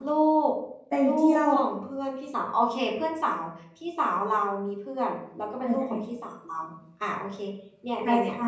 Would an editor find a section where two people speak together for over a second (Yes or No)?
No